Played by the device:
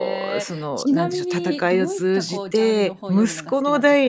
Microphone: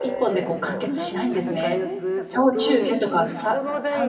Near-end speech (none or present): present